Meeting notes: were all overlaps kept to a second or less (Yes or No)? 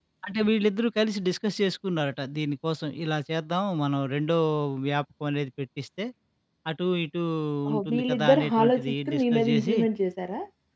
No